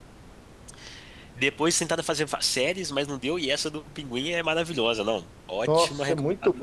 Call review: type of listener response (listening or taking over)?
taking over